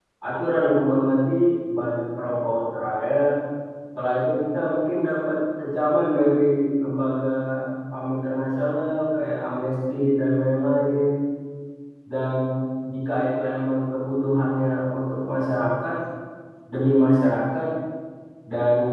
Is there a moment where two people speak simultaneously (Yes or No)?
No